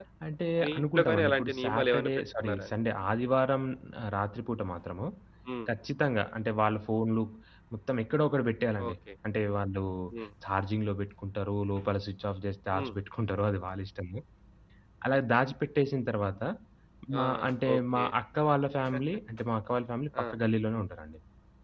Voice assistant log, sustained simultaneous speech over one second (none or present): present